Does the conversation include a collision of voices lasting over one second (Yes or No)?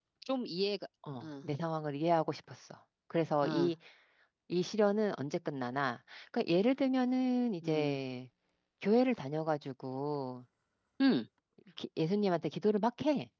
No